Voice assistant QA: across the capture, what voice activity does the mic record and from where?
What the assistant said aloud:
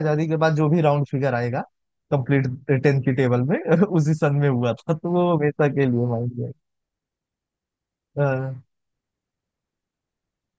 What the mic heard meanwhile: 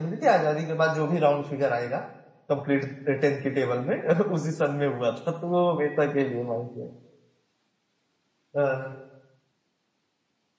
echo only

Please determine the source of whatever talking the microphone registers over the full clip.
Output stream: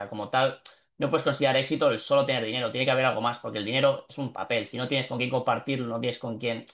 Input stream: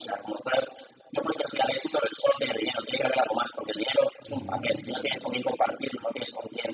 both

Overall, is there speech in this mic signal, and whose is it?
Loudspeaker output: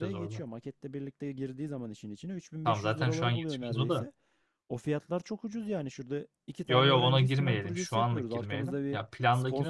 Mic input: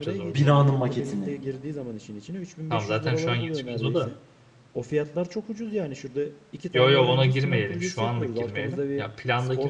both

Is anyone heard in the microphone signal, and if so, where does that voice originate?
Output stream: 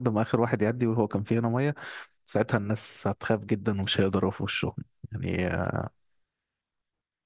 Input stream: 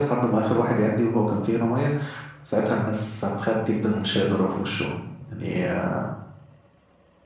echo only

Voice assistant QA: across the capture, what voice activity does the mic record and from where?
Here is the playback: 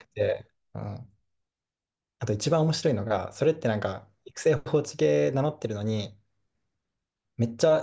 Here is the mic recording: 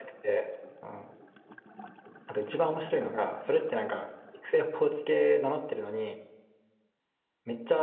echo only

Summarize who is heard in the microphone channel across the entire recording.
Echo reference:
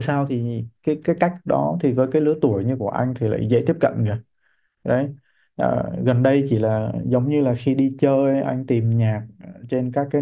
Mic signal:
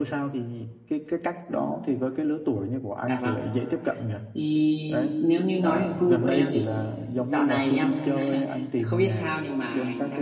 both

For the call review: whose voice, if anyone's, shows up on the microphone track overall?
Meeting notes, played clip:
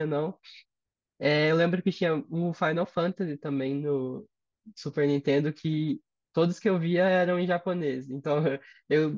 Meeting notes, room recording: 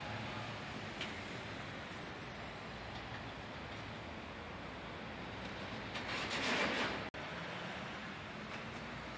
neither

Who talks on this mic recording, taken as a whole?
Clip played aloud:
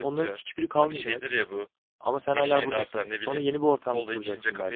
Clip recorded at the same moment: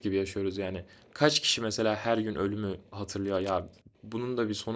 user only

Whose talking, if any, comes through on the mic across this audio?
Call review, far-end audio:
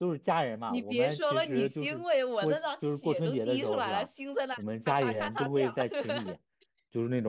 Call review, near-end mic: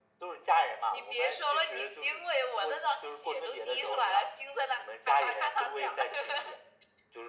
echo only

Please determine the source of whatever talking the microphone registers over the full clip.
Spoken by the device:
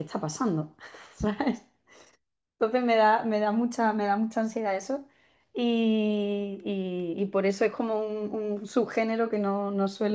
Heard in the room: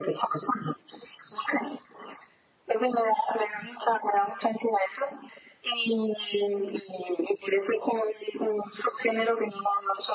echo only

